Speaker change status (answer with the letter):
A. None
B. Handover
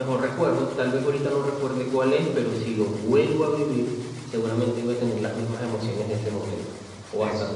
B